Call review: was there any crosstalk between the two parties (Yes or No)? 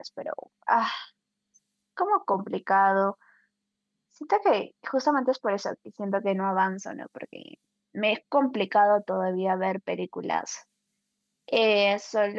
No